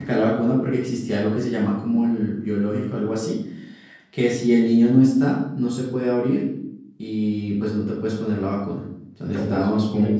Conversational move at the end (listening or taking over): taking over